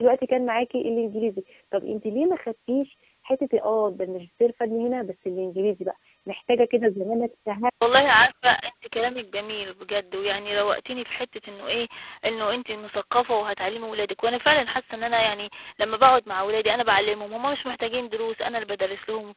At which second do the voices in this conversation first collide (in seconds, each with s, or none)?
none